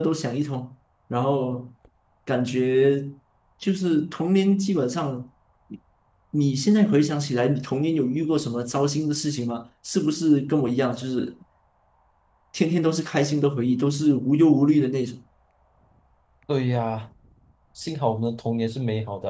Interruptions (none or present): none